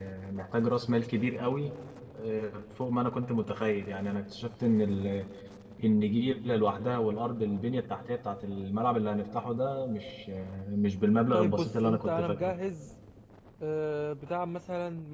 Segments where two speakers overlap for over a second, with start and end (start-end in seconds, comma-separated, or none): 11.3-12.5